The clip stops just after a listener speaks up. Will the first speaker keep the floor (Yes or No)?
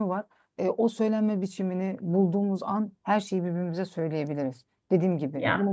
Yes